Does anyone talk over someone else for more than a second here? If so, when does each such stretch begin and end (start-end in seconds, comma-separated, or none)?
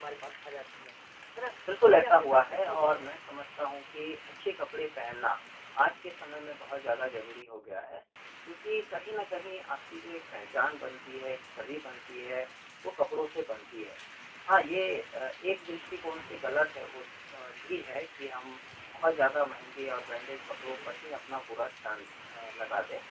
1.9-3.1